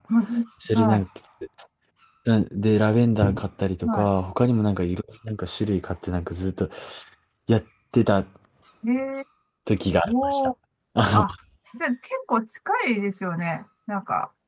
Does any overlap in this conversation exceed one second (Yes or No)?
No